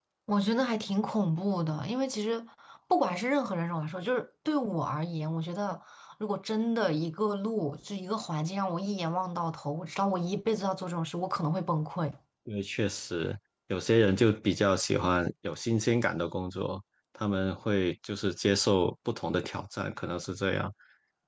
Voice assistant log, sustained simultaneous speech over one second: none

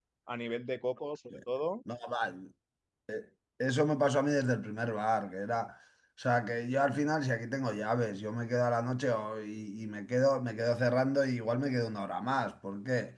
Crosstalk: none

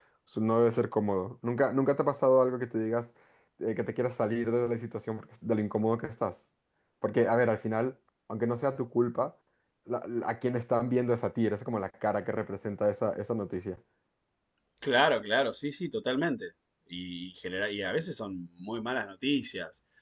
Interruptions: none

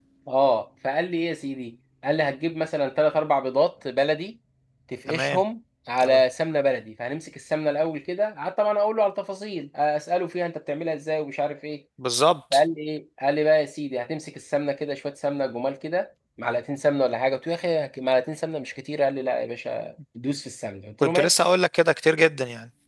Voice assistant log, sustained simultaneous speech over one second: none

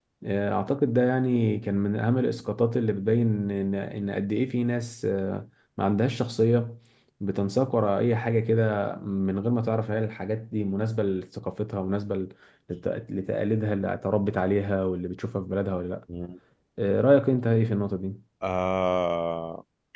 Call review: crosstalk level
none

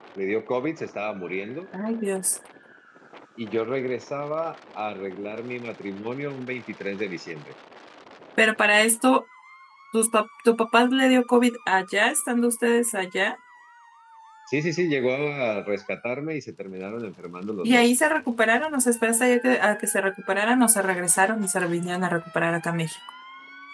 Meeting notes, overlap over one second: none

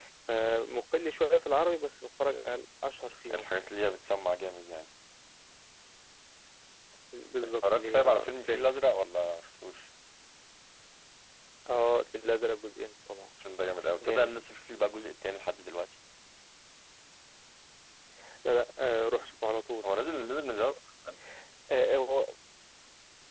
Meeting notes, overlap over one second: present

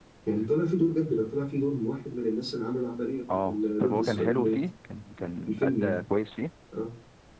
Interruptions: present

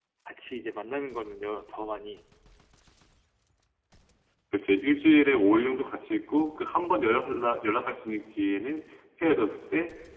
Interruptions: none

